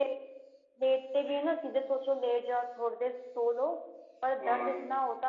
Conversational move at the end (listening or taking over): listening